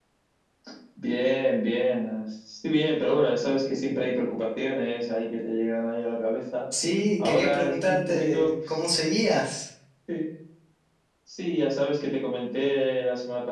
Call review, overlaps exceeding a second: present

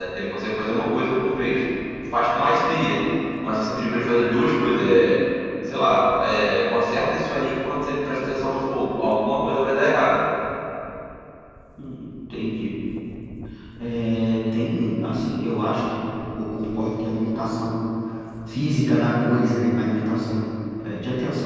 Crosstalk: none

